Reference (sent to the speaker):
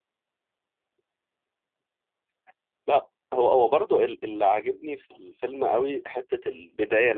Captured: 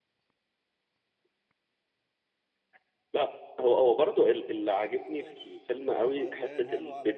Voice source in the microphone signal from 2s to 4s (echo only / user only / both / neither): echo only